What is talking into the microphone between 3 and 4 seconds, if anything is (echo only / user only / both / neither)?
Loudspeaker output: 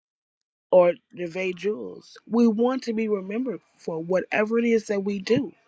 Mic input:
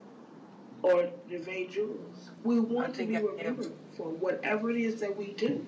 both